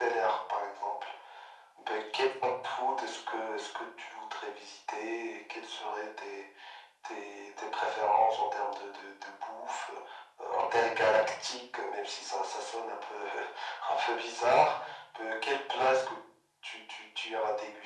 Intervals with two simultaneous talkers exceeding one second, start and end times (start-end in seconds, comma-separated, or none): none